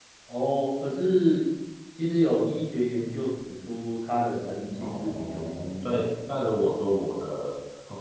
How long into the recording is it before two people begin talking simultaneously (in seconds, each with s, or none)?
4.7 s